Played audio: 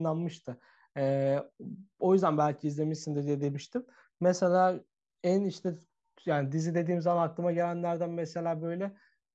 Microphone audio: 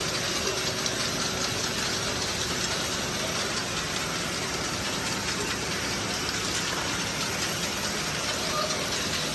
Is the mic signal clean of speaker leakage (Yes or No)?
Yes